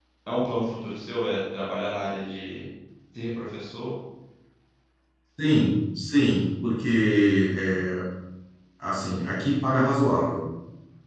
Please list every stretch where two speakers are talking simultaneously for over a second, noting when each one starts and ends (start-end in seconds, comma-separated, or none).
none